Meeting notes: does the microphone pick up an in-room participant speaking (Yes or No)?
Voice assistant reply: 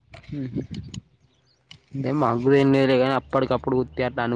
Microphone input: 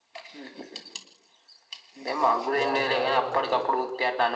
Yes